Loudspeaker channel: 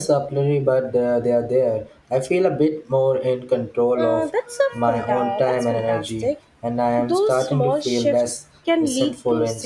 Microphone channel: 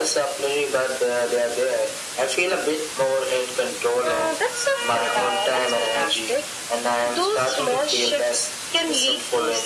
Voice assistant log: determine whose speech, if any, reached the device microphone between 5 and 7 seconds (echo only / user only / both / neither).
echo only